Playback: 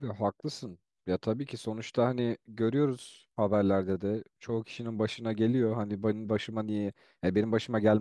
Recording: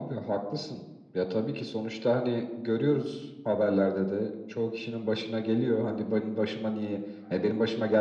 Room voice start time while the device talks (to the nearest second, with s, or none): none